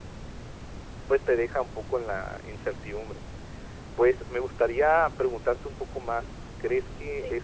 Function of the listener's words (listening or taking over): listening